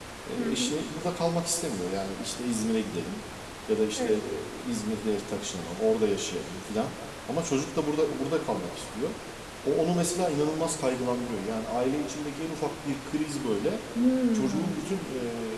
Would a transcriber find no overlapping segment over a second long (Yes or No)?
Yes